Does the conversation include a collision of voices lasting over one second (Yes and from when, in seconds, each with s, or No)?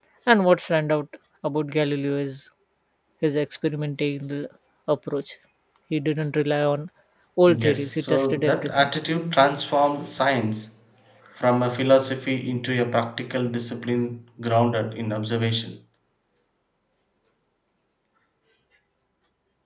Yes, from 7.5 s